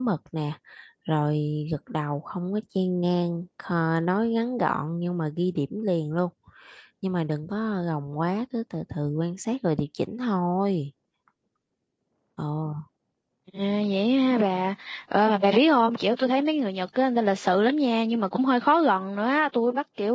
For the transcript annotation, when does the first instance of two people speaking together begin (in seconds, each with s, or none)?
none